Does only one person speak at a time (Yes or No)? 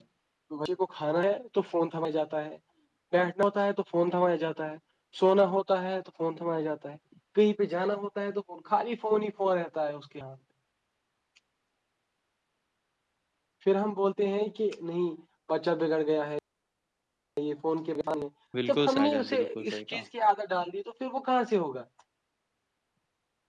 No